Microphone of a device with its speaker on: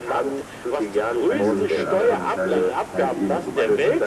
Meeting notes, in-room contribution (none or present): present